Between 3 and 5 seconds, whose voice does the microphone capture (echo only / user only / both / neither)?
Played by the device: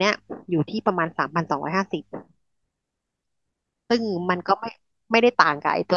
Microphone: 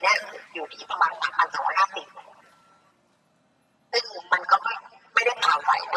echo only